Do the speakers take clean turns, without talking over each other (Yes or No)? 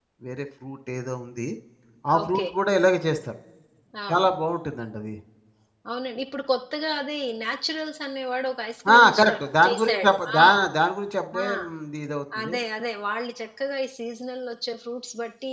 No